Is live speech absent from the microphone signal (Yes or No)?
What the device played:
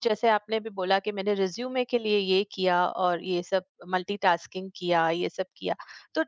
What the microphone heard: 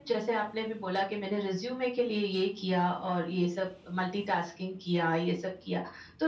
Yes